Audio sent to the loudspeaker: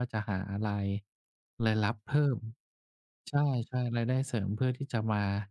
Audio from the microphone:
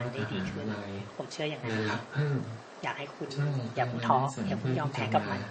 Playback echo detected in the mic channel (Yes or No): Yes